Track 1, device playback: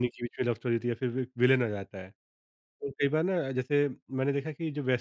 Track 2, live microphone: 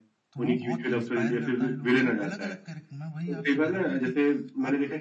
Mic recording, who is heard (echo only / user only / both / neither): both